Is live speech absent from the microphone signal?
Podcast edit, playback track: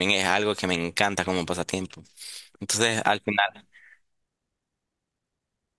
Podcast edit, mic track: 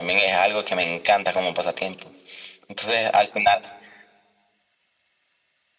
Yes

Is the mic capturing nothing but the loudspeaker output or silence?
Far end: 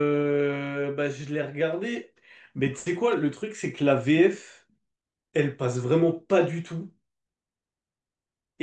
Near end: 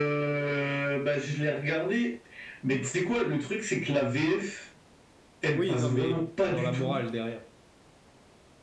No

